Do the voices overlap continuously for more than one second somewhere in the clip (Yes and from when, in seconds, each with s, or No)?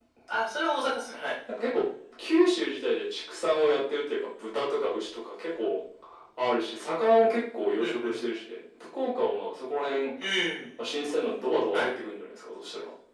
No